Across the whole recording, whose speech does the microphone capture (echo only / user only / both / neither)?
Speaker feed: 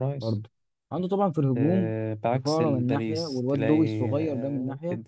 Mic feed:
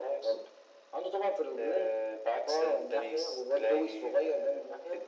echo only